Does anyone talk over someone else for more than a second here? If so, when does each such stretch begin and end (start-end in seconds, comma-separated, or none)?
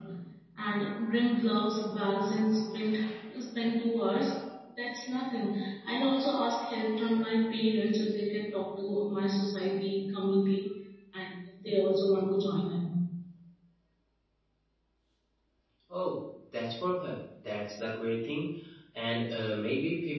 none